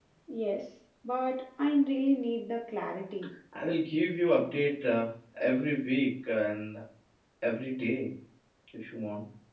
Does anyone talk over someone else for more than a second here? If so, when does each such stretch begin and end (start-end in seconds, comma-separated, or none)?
none